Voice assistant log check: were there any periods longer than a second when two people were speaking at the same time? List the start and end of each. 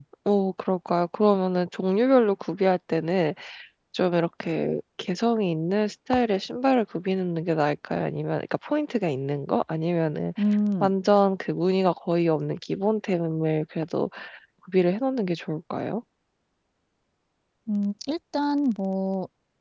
none

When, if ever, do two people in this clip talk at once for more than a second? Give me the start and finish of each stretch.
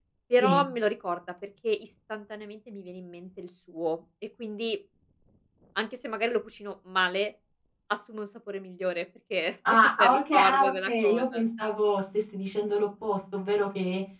9.7-11.4

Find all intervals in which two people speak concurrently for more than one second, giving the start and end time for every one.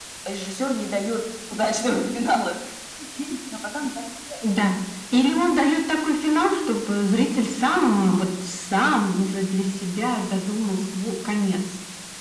none

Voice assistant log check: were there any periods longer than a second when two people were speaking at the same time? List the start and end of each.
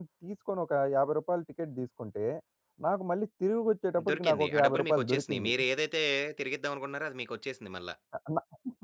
4.1-5.5

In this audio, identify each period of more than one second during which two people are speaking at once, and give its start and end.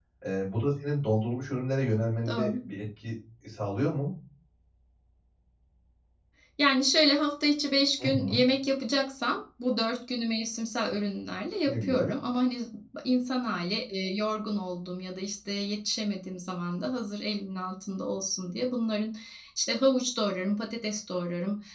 none

